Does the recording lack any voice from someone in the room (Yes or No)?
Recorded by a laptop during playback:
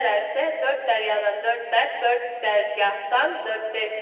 Yes